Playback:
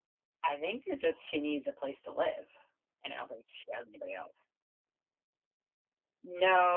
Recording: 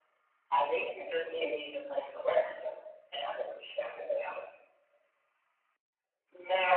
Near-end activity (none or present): none